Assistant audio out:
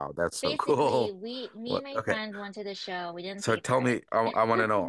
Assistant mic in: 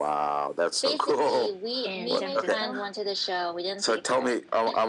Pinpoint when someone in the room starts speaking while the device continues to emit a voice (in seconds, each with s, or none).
1.8 s